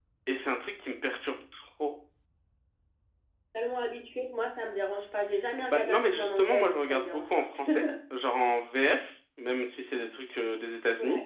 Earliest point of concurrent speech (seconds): 6 s

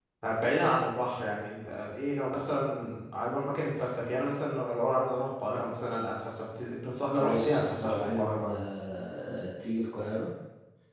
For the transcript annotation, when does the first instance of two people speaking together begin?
7 s

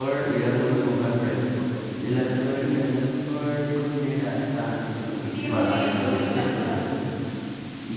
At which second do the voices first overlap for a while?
5 s

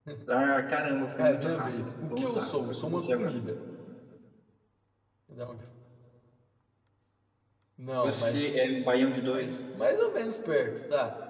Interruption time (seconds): 1 s

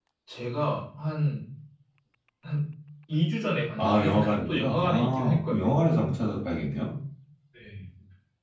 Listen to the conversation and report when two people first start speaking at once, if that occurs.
4 s

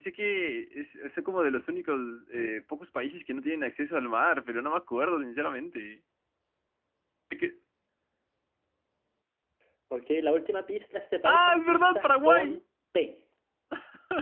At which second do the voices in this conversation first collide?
11 s

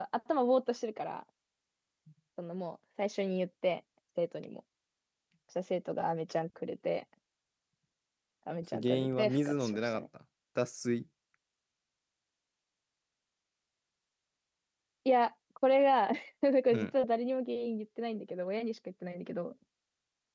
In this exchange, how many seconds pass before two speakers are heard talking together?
9 s

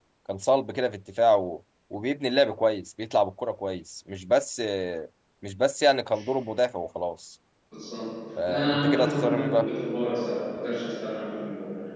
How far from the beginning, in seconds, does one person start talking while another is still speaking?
8 s

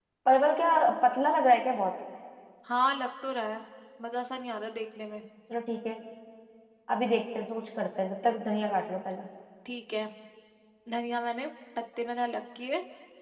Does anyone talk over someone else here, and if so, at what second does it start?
none

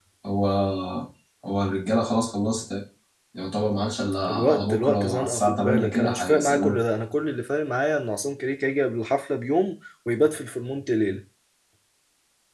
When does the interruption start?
4 s

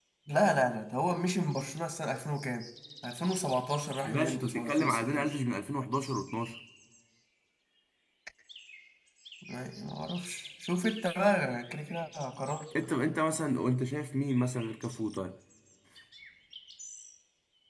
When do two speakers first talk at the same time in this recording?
4 s

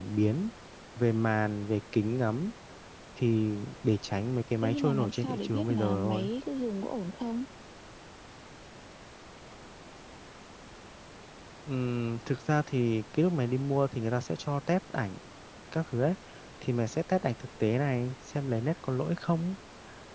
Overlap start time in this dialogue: 5 s

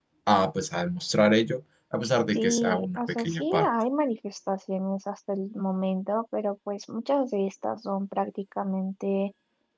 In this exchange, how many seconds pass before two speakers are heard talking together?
2 s

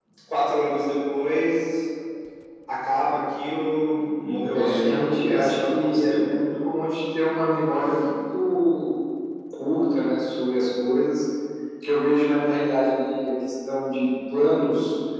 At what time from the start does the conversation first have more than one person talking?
5 s

